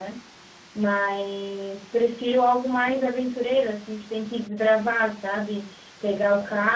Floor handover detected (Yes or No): No